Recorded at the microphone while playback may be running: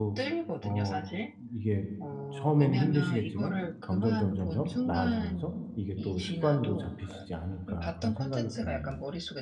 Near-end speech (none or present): present